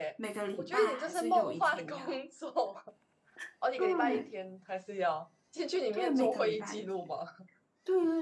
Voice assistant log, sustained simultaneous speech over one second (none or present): present